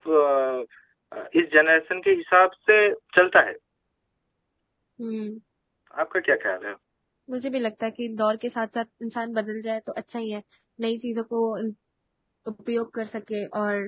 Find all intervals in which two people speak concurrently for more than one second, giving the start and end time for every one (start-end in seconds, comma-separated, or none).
none